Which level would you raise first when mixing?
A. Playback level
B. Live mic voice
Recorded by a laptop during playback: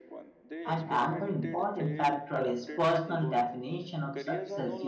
A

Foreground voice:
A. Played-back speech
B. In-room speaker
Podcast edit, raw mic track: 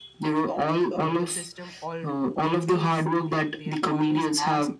A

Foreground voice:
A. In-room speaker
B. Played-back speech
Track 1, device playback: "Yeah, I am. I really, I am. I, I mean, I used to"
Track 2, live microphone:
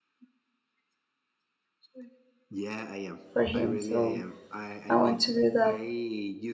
A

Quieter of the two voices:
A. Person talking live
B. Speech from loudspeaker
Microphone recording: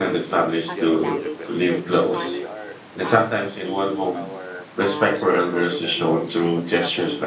B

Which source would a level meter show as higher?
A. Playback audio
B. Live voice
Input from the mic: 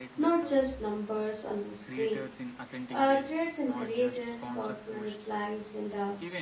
B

